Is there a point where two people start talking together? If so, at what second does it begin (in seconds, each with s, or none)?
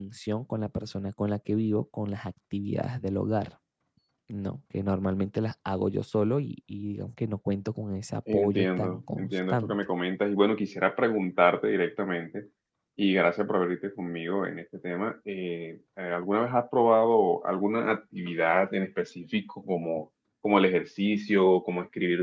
8.3 s